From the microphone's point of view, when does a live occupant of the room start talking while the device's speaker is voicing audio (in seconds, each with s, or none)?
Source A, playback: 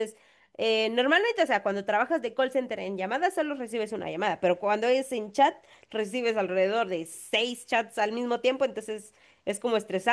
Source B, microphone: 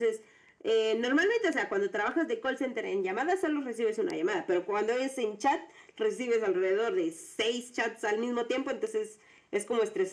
none